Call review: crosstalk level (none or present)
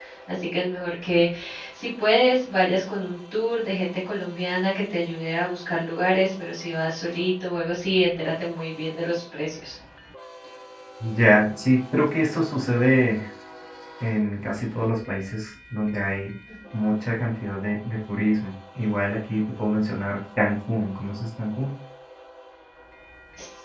none